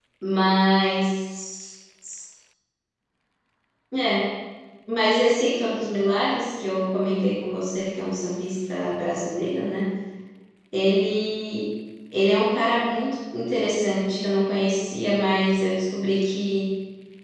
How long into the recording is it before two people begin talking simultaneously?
none

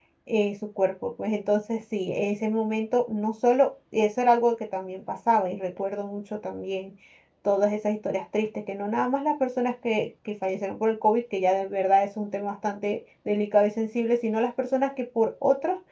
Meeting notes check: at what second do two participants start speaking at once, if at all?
none

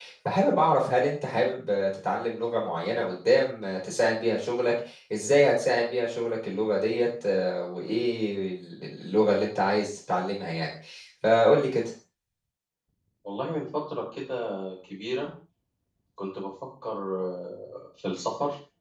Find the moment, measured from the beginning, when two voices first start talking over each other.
none

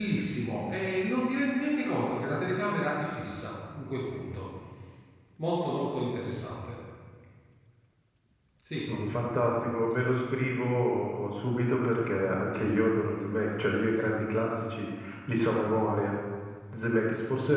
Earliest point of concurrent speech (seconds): none

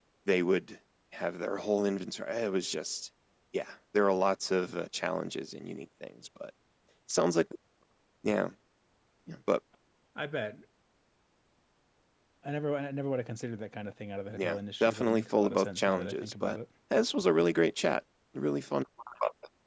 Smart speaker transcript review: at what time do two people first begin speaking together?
14.4 s

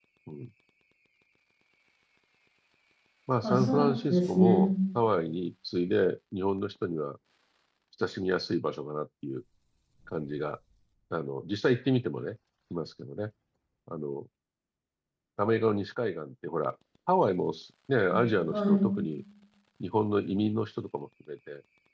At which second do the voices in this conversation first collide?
3.4 s

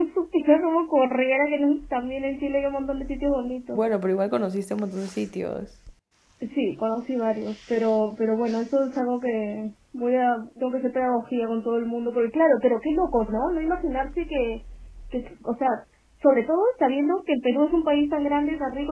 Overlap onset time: none

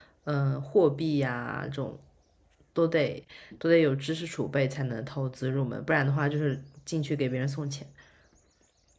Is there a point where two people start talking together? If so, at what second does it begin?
none

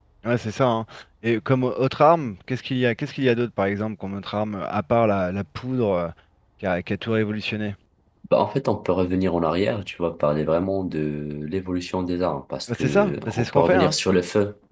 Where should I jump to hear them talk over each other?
12.7 s

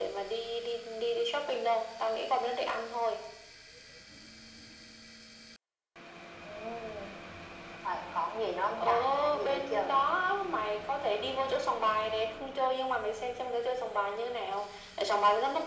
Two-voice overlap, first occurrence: 8.8 s

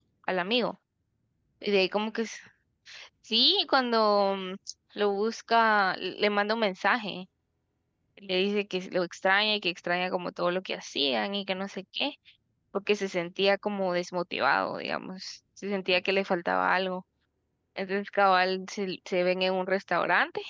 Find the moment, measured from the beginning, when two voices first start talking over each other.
none

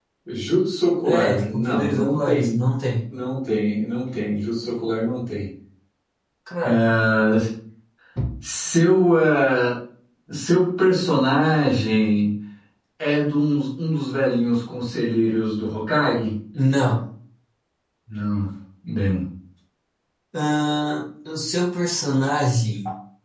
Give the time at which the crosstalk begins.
1.0 s

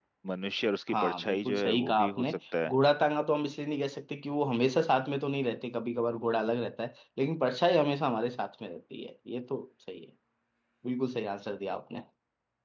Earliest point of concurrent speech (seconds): 0.9 s

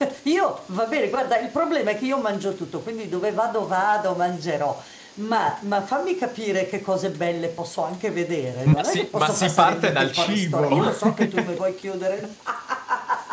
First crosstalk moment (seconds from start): 8.7 s

